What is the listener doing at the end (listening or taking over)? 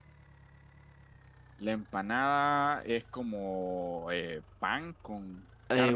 taking over